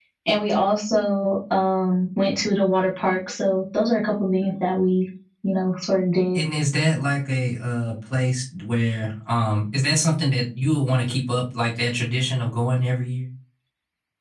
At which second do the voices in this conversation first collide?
none

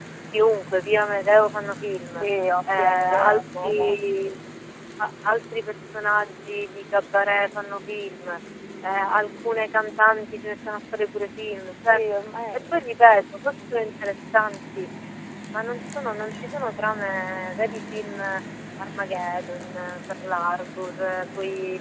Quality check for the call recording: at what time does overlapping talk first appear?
2.6 s

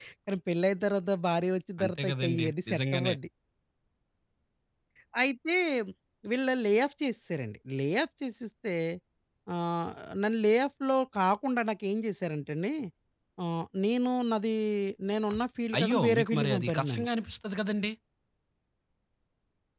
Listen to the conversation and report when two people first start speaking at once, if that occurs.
1.8 s

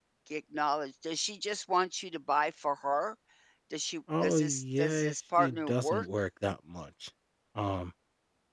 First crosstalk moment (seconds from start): 4.2 s

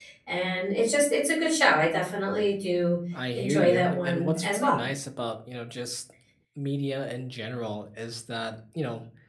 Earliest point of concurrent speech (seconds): 3.1 s

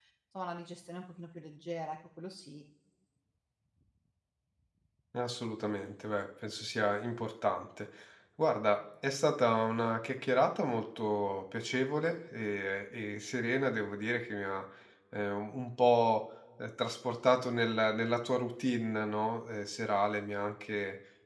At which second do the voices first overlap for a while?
none

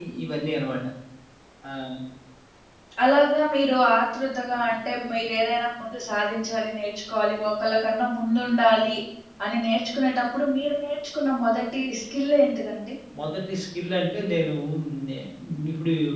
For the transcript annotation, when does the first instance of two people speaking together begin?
none

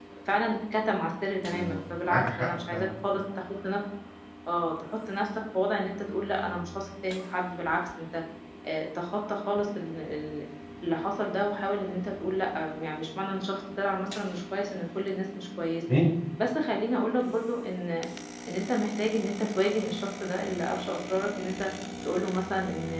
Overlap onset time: 1.5 s

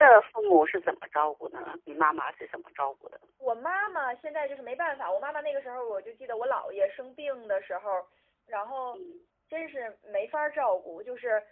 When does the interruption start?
none

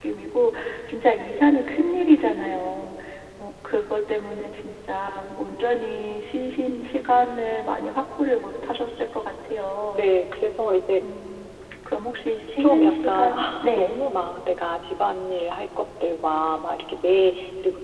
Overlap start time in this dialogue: 12.6 s

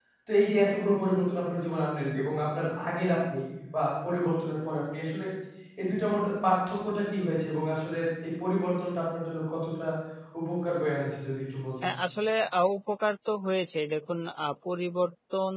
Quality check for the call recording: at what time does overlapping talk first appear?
none

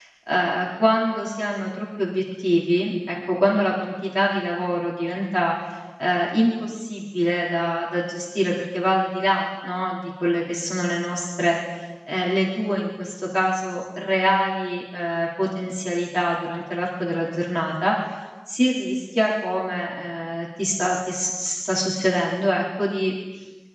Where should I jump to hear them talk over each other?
none

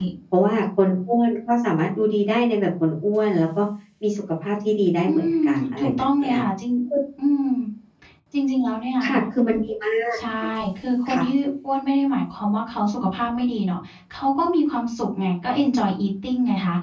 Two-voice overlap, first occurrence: 5.1 s

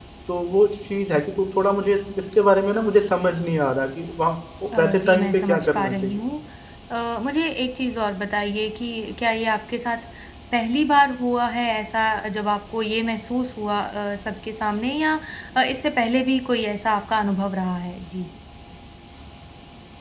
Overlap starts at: 4.8 s

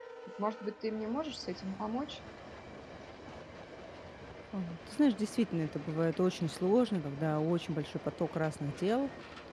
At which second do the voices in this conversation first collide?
none

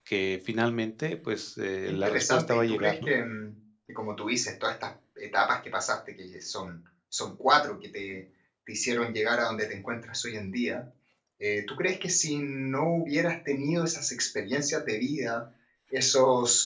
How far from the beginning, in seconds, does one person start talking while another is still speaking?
1.9 s

